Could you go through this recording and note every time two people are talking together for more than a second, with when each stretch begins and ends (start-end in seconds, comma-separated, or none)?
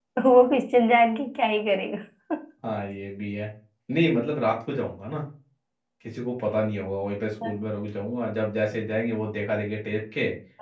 none